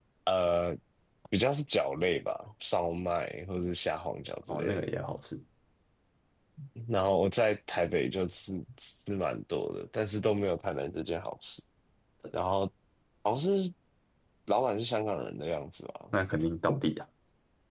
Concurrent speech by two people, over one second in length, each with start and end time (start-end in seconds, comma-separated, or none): none